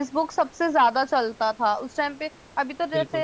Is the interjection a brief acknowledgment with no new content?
Yes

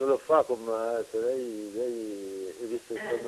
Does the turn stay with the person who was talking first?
Yes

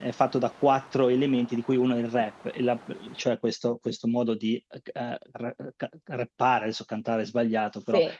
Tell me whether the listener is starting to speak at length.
No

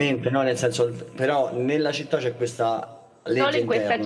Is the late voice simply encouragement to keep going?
No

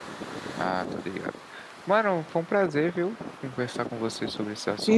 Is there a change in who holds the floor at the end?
Yes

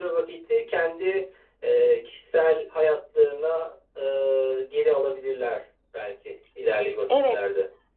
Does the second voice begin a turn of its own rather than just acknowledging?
Yes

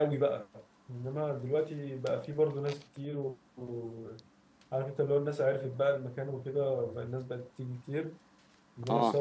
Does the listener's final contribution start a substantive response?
No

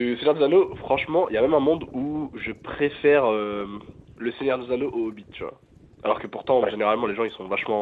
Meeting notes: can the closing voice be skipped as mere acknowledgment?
Yes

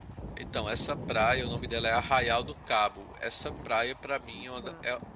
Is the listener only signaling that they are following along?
Yes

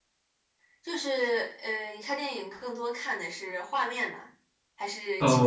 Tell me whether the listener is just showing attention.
No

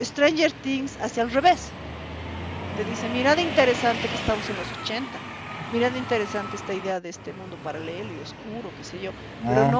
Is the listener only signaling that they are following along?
Yes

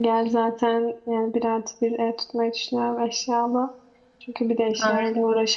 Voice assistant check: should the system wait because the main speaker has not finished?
Yes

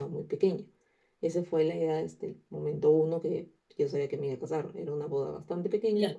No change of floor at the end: Yes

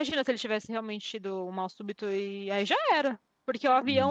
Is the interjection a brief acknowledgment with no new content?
Yes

